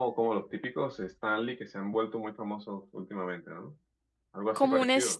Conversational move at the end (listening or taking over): taking over